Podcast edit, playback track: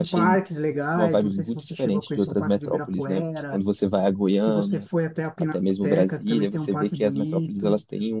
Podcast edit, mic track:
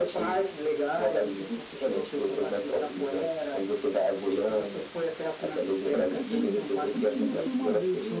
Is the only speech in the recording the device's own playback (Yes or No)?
No